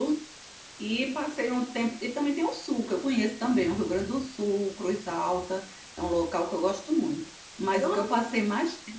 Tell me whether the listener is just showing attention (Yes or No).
Yes